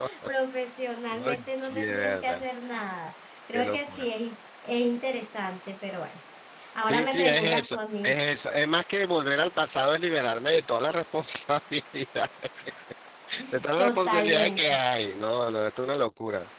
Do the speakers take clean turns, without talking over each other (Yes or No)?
No